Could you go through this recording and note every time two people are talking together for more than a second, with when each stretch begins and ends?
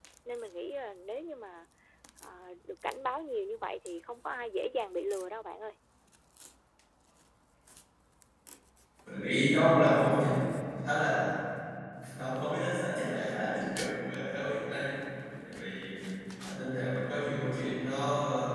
none

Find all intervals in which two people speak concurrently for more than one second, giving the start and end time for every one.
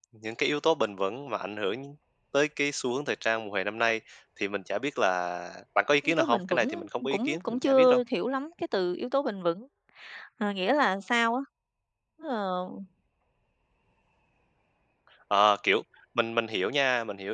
6.0-8.0

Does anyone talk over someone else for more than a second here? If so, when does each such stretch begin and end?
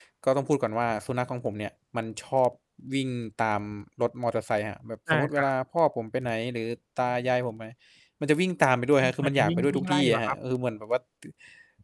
9.0-10.3

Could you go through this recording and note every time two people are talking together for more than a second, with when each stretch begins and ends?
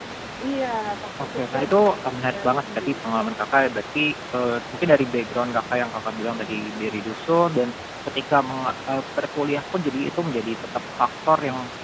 1.2-2.9

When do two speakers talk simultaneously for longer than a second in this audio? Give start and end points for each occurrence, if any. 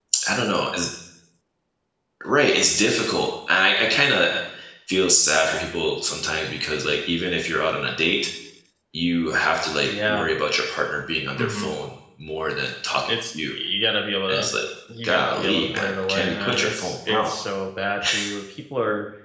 15.0-17.3

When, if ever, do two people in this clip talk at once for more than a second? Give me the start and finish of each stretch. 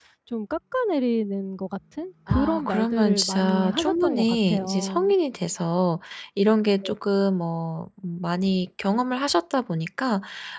2.3-5.0

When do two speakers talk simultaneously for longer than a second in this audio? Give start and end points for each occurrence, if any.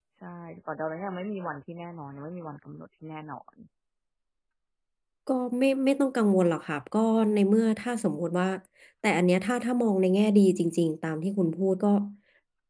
none

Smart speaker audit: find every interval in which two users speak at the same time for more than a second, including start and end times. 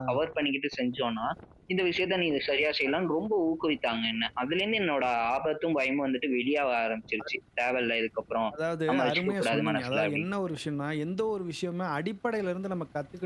8.9-10.3

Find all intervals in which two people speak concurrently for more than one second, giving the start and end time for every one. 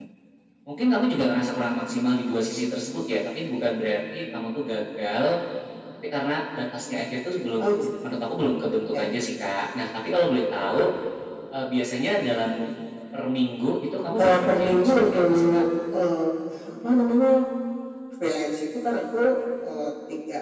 14.2-15.6

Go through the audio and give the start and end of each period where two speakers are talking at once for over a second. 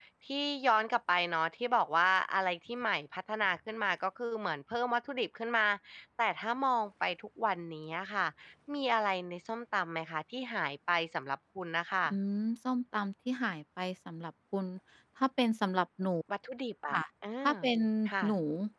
none

